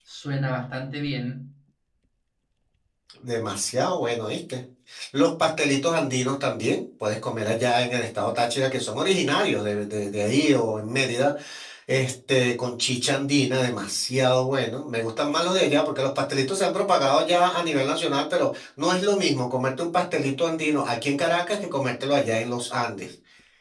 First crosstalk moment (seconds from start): none

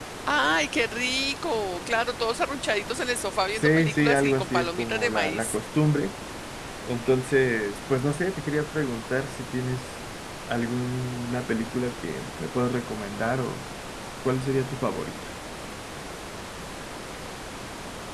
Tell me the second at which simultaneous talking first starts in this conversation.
3.5 s

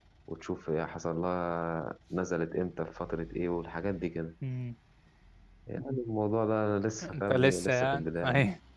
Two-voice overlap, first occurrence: 7.0 s

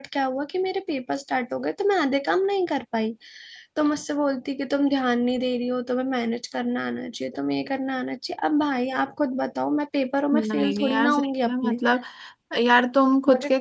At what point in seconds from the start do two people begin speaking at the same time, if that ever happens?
10.3 s

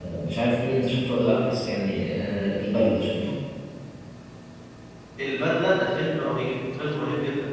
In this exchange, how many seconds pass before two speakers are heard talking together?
none

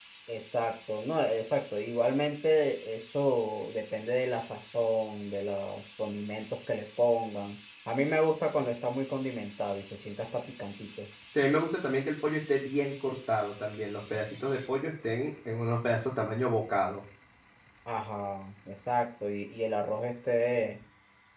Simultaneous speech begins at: none

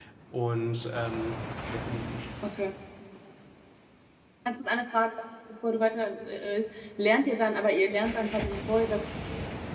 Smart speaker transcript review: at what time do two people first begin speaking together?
none

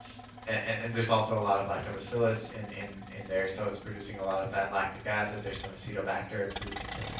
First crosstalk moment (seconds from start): none

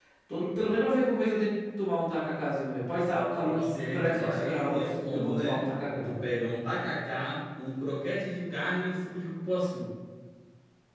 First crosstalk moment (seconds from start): 3.4 s

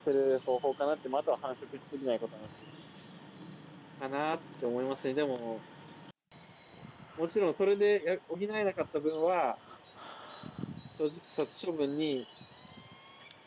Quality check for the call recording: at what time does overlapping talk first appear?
none

